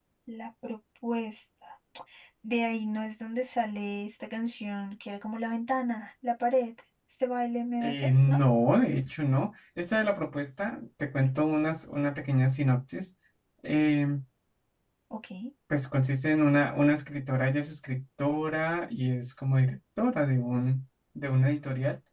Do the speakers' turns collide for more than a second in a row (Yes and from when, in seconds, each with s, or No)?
No